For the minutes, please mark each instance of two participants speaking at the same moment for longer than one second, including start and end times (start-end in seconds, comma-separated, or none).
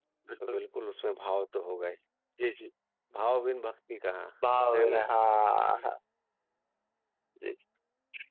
none